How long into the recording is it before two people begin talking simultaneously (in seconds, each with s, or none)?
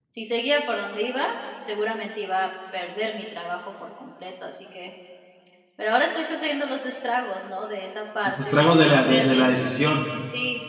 8.2 s